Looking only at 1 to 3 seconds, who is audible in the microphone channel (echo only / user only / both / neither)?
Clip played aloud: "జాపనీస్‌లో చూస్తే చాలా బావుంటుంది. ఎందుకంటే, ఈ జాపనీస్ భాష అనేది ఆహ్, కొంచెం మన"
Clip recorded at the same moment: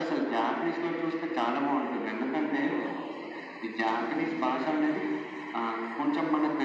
echo only